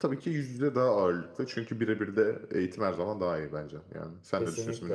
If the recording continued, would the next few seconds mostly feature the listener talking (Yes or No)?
Yes